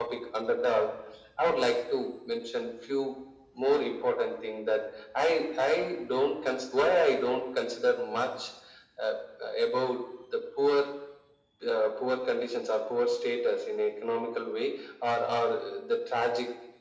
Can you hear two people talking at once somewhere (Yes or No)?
No